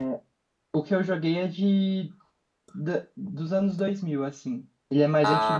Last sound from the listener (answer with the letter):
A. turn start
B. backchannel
B